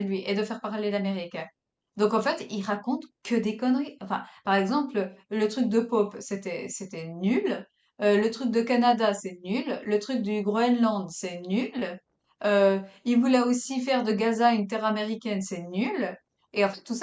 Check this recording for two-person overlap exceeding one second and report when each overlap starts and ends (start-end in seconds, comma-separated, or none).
none